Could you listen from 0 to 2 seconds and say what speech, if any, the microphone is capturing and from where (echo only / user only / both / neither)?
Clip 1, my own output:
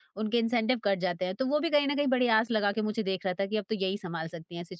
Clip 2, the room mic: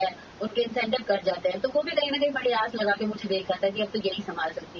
echo only